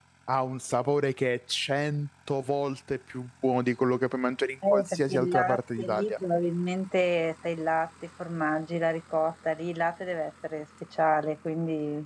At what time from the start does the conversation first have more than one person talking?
5 s

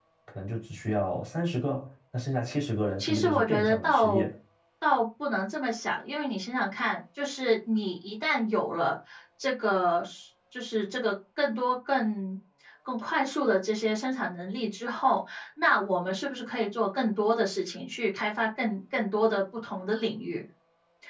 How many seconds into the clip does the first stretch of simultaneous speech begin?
3 s

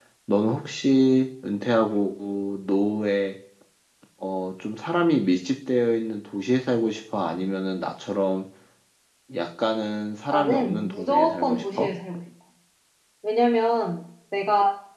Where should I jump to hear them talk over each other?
10 s

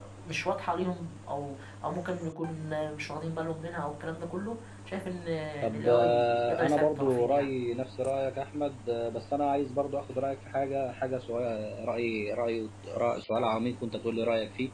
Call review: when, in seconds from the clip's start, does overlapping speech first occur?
6 s

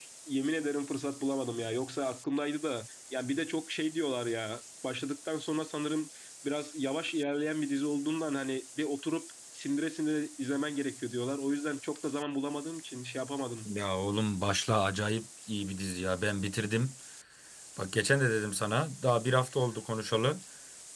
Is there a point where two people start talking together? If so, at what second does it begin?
none

